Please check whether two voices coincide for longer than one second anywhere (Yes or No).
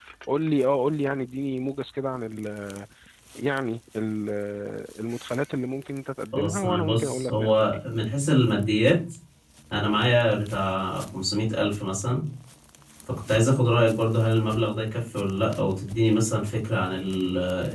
Yes